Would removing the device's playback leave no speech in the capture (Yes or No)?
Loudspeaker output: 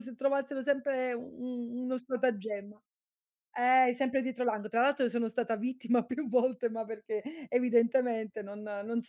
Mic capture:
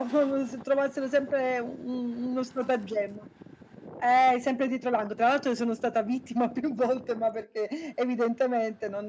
Yes